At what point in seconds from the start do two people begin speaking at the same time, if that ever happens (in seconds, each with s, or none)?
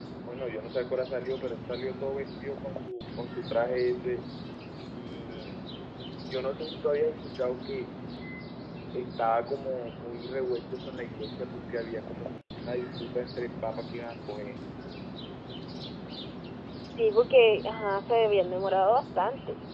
none